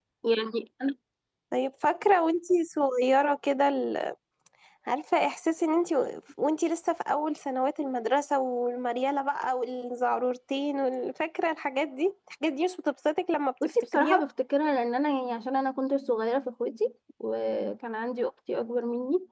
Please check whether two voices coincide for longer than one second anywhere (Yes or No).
No